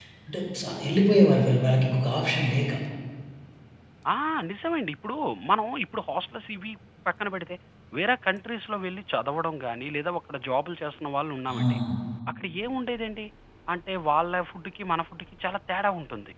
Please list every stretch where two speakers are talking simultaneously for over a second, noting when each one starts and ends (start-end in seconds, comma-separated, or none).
none